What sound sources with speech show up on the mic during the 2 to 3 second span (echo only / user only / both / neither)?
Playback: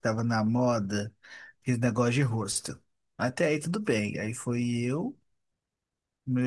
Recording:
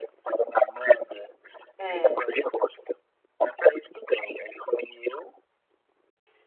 both